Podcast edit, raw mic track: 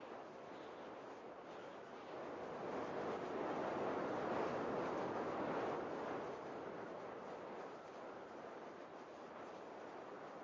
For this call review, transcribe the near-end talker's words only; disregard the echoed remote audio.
none

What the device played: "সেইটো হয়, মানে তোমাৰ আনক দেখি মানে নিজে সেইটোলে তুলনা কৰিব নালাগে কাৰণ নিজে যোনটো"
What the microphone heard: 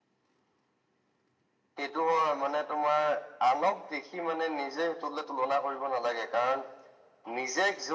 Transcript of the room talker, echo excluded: none

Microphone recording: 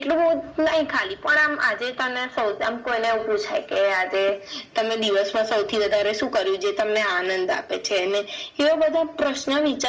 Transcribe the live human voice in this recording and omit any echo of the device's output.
none

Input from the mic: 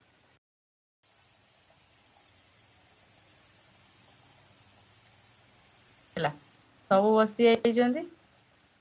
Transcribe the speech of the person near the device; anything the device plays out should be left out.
ହେଲା ସବୁ ବସିଯାଇଛନ୍ତି।

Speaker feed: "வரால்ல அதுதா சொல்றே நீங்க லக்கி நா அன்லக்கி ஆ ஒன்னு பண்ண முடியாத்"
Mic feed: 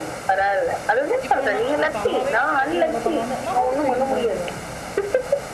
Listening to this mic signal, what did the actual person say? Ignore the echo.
இப்ப நா ஆ இப்ப அம்மாவே கிச்சன்ல இருக்கும்போது அதா பண்ண வந்தா நா பாத்துக்குறே நீ போன்ருவாங்க

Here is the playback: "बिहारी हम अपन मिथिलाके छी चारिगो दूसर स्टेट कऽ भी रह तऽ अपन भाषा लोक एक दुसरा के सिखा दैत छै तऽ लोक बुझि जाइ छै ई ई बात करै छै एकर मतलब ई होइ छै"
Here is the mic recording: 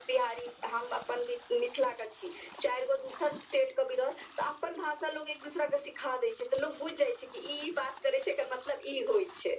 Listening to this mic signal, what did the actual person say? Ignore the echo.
none

